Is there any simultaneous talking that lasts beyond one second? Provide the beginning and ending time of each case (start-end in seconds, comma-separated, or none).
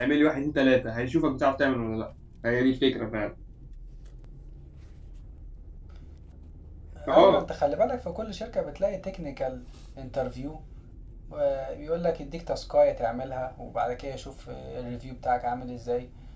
none